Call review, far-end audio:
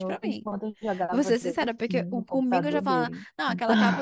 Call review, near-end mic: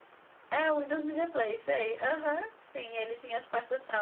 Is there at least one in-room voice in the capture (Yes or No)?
Yes